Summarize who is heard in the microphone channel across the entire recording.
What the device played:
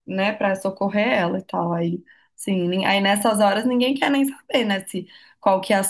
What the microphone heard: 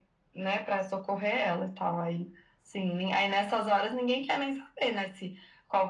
echo only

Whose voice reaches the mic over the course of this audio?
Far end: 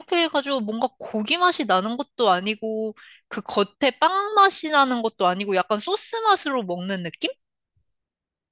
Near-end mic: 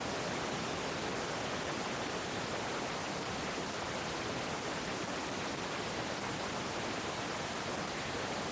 neither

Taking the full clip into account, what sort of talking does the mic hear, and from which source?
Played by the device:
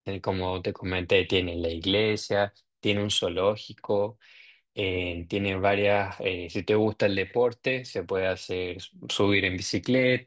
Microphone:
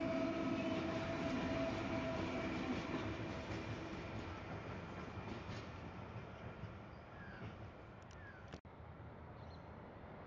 neither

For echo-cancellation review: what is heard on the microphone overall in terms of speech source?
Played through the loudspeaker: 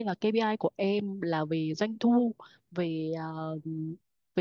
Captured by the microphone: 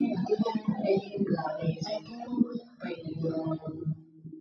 echo only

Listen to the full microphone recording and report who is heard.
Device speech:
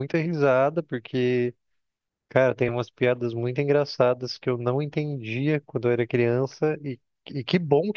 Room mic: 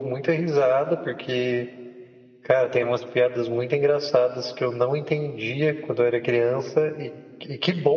echo only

